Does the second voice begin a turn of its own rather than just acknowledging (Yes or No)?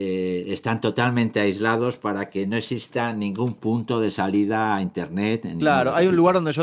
Yes